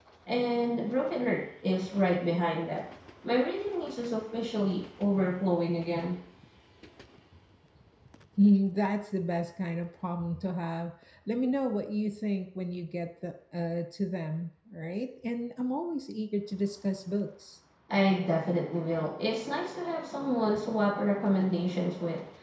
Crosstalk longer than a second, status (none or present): none